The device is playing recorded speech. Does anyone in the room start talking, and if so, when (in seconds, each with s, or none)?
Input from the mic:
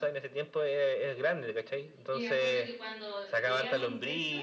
2.1 s